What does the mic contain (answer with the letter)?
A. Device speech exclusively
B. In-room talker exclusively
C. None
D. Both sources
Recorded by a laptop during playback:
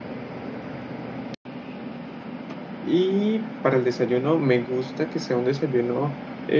B